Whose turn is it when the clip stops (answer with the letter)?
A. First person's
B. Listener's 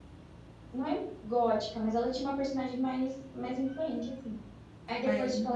A